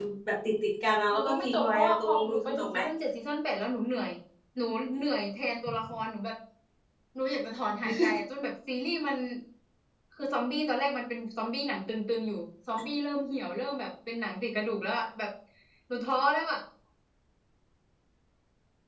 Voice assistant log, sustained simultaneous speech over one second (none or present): present